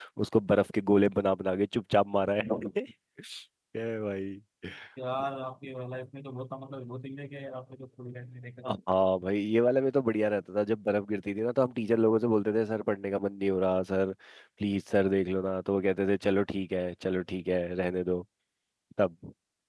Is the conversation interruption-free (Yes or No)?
Yes